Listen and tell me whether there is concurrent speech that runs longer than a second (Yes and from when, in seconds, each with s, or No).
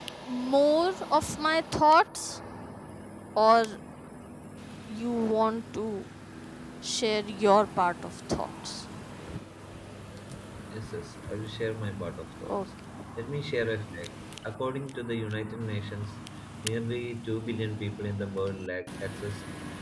No